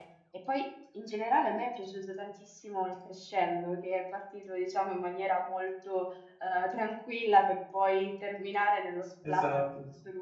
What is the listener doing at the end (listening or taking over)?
listening